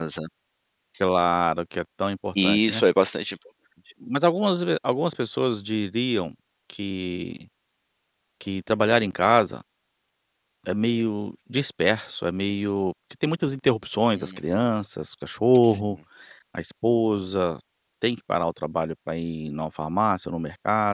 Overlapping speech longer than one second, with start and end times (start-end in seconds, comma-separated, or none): none